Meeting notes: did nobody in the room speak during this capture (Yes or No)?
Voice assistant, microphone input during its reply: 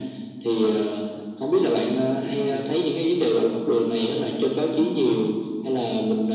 No